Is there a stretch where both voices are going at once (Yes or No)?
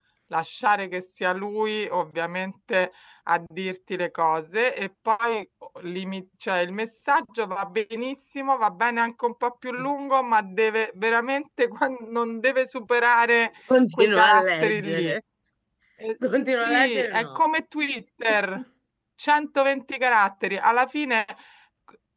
Yes